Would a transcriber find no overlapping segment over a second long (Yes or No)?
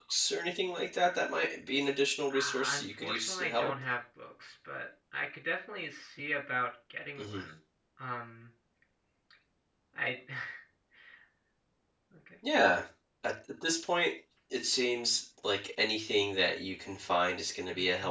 No